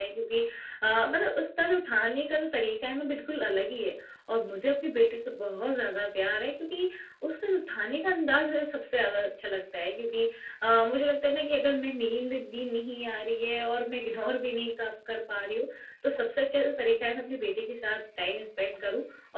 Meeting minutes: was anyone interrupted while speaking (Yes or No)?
No